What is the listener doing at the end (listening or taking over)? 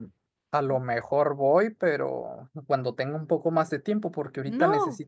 listening